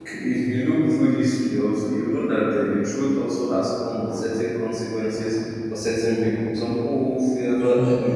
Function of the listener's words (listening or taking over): listening